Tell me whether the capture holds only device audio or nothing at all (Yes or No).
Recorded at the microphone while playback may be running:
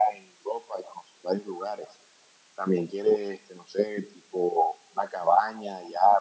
Yes